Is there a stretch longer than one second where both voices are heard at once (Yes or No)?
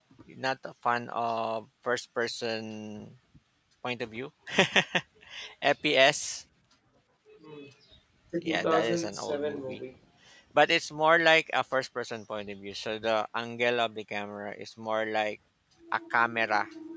Yes